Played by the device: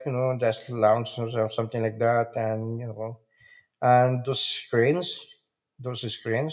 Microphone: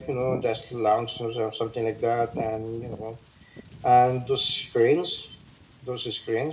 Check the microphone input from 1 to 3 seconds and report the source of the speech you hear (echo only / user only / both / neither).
echo only